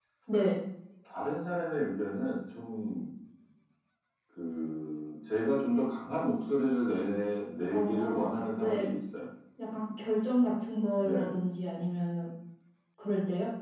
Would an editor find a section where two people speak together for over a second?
Yes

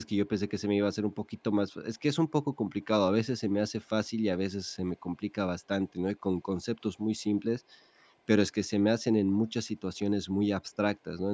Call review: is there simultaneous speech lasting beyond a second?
No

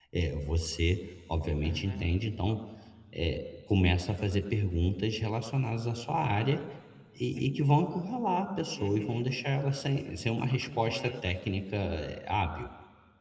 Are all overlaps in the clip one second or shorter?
Yes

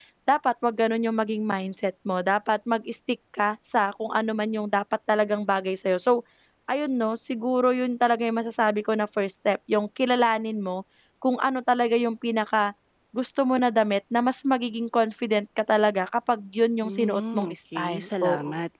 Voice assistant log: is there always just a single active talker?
No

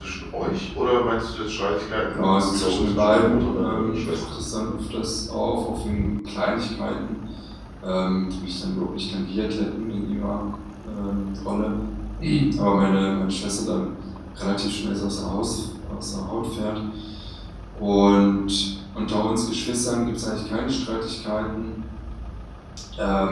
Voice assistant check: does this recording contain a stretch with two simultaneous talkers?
Yes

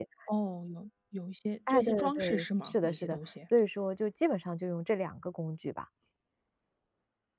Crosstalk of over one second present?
Yes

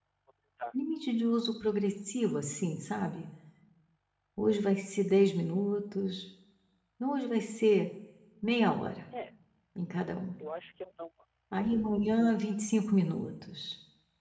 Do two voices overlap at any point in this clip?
No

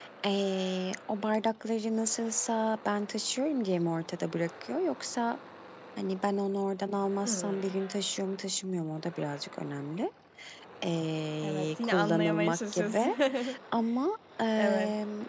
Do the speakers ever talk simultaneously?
Yes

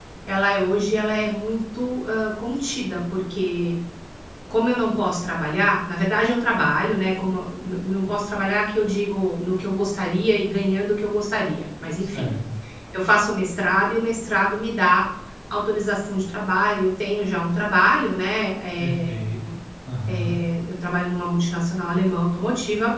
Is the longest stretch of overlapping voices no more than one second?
Yes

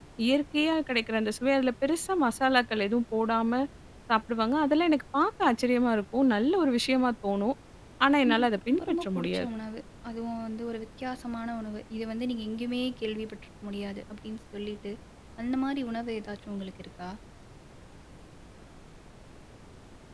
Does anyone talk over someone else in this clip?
Yes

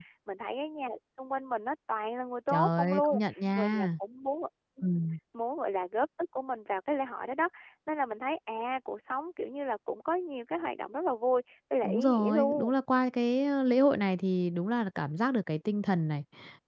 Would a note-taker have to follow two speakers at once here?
Yes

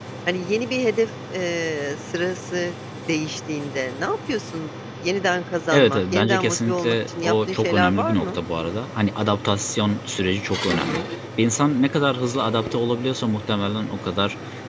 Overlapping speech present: Yes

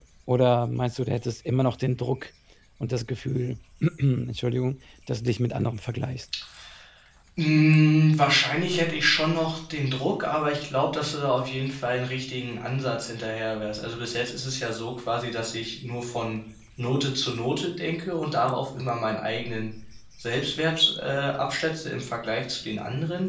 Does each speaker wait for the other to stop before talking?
Yes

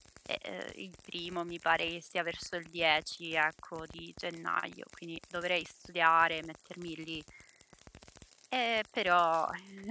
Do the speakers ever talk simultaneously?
No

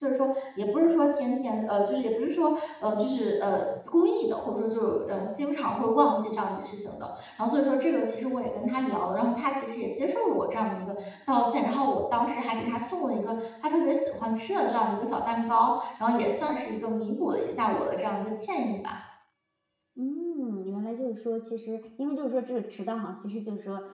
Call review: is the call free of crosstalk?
Yes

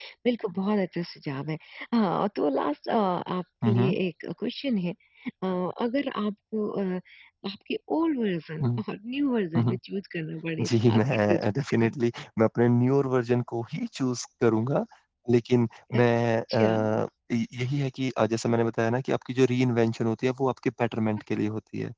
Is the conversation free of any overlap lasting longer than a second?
No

